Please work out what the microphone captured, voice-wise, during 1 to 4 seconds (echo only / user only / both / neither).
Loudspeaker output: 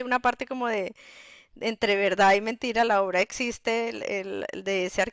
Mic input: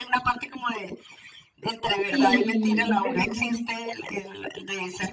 both